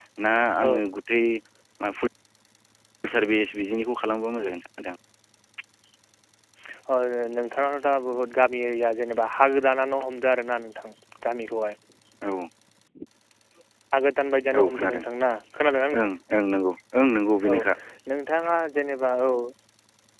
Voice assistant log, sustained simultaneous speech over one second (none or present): none